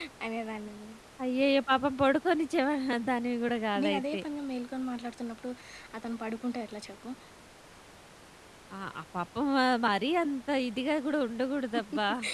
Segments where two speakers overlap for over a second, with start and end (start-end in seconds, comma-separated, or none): none